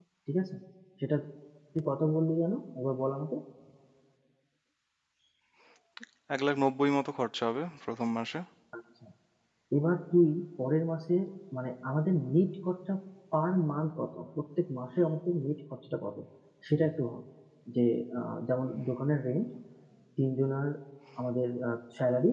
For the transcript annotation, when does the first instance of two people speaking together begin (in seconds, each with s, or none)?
none